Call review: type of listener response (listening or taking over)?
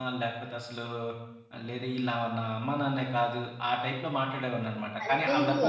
taking over